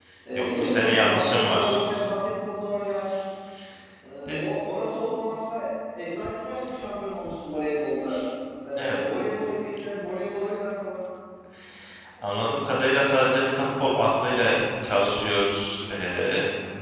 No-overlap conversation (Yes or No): No